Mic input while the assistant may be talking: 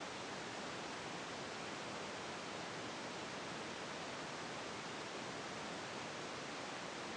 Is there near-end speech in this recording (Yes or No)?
No